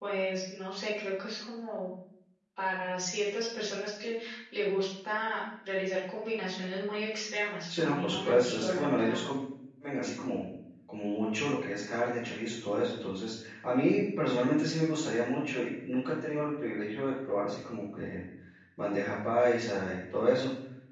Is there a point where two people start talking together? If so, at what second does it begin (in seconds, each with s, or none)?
7.7 s